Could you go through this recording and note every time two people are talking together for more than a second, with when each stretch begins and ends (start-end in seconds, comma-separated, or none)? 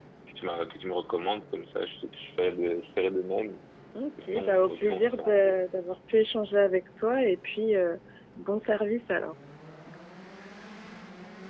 4.3-5.5